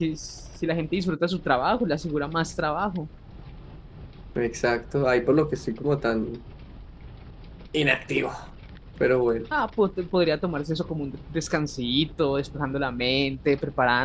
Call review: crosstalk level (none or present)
none